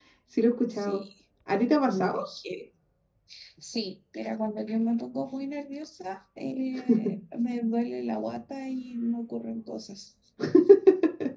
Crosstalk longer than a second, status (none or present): none